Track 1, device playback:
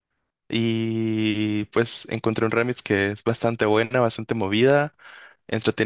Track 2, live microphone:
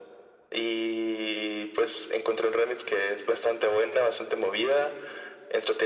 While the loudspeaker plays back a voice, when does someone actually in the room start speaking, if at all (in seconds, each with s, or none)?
none